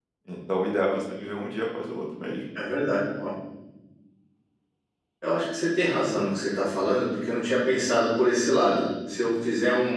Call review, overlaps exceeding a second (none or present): none